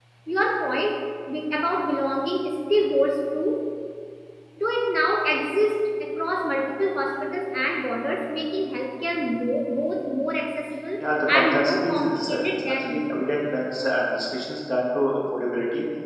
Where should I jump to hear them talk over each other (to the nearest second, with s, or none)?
11 s